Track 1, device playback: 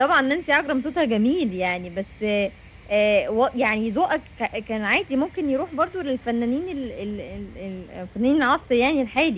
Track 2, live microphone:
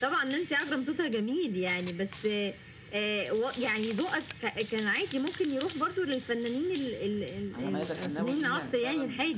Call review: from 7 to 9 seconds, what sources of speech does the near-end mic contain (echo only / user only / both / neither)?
both